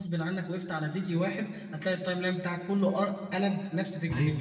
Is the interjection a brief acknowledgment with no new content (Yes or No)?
No